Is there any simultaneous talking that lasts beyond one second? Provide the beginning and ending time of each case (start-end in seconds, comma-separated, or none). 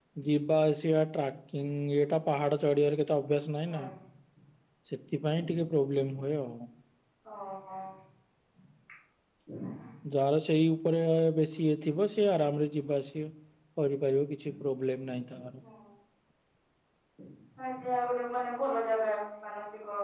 none